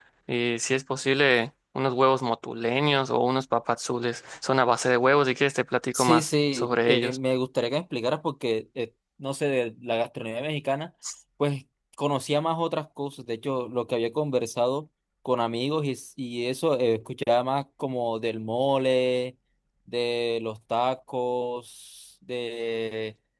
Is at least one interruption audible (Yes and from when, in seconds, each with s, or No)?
Yes, from 5.9 s